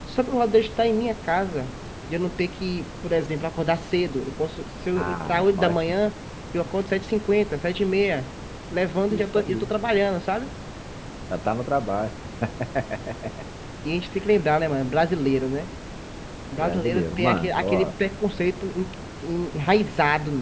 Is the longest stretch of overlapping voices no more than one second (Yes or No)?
No